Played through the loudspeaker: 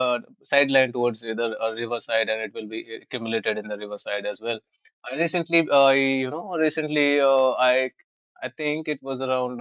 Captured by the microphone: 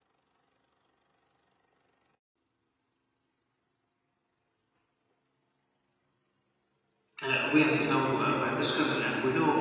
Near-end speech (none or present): present